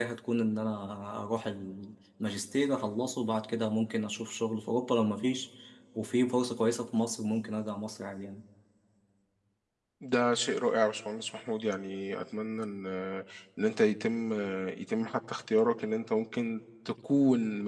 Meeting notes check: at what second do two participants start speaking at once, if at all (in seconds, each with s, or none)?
none